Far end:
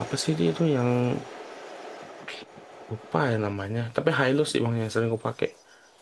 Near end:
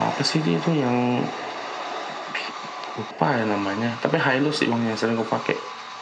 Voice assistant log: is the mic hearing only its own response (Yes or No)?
Yes